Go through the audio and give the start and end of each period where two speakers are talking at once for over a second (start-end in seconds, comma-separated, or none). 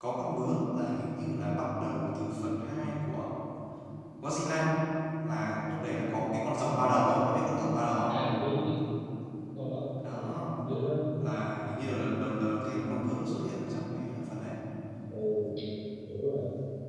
none